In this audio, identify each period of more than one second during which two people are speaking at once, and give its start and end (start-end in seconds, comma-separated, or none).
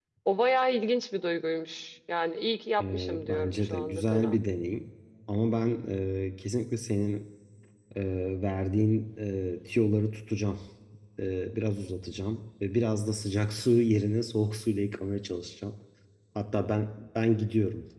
2.8-4.4